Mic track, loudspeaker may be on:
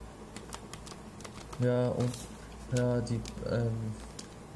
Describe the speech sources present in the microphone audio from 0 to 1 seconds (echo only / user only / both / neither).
neither